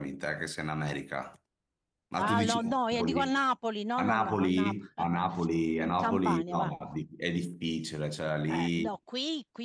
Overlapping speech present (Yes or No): Yes